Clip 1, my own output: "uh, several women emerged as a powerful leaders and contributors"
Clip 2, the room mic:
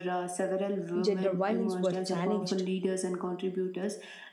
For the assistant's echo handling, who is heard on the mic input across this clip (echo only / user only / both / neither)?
both